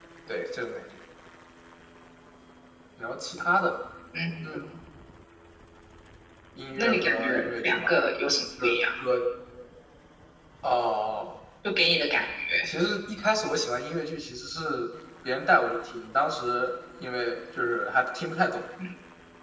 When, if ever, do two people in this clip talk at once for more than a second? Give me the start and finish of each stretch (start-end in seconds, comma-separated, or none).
6.7-7.9